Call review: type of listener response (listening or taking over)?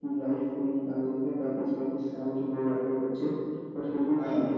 listening